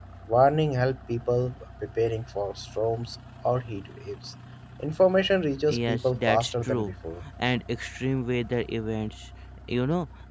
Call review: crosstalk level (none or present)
present